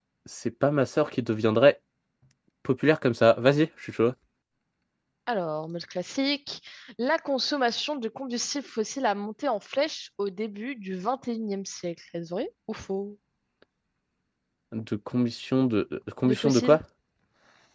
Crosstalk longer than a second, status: none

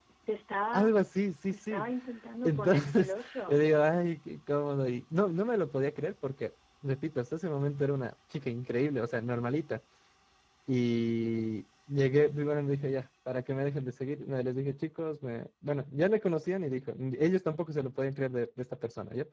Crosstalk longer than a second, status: present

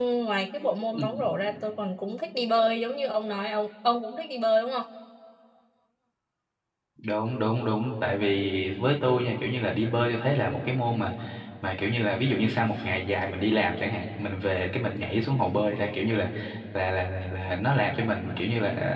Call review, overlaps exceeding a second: none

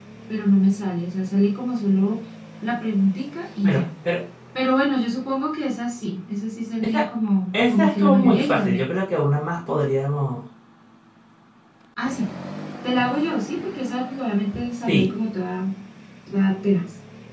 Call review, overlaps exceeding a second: present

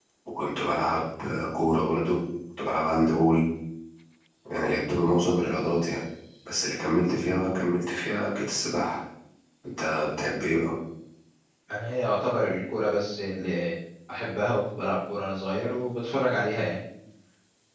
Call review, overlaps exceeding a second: none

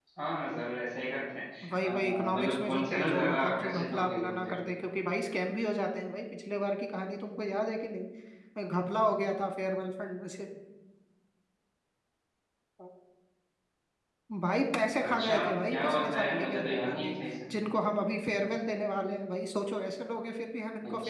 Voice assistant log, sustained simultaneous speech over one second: present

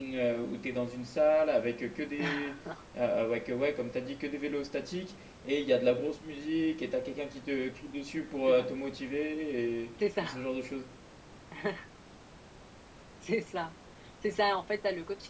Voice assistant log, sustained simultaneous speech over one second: none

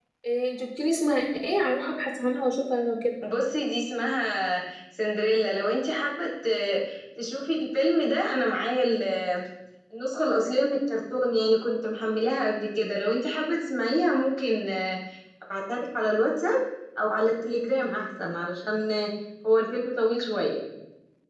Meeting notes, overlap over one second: none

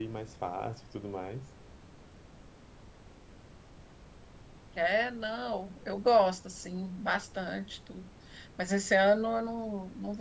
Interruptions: none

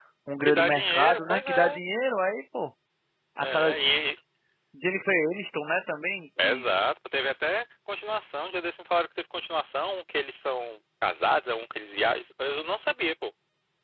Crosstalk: present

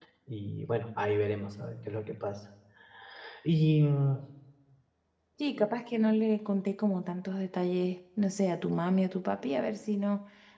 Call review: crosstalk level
none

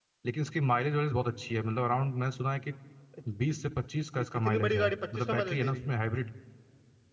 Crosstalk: present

